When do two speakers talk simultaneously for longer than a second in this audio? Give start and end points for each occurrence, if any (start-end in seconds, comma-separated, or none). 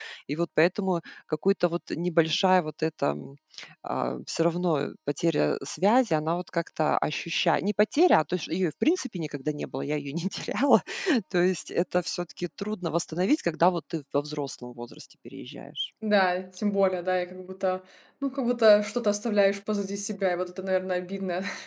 none